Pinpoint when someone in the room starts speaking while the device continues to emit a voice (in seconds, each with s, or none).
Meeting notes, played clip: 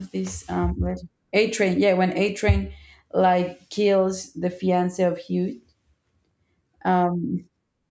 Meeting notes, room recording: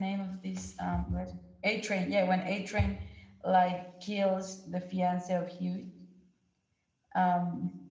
none